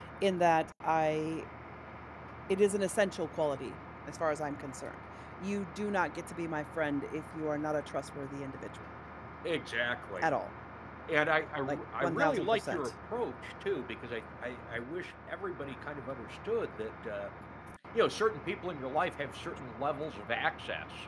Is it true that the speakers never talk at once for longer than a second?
No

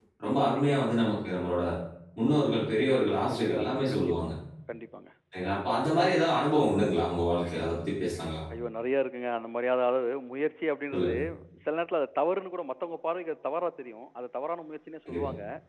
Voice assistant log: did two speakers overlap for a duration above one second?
Yes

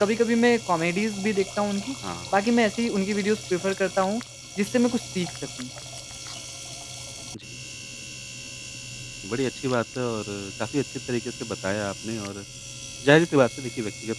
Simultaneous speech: No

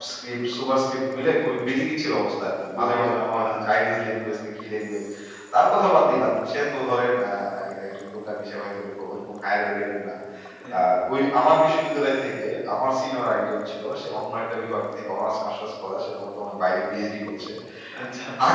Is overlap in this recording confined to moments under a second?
No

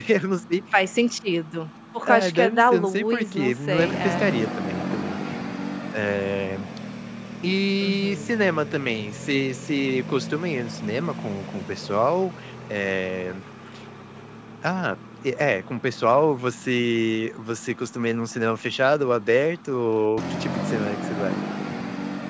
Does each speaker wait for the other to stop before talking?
No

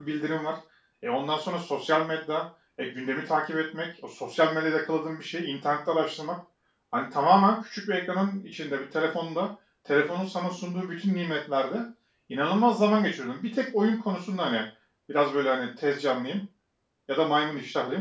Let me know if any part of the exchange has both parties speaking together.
No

